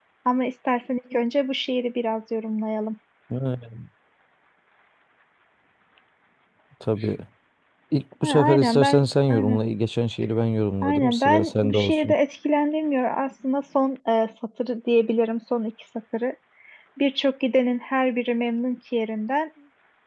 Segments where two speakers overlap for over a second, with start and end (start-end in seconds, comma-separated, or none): 8.2-9.6, 10.8-12.1